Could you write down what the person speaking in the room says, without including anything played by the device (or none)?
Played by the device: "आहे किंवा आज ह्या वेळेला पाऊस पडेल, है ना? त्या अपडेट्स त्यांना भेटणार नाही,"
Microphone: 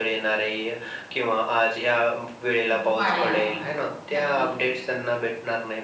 ध वाढेल. नक्कीच.